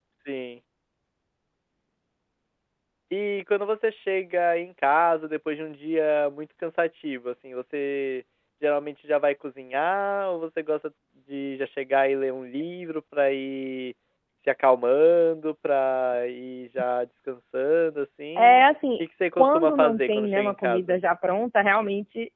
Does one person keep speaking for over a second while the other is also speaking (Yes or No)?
Yes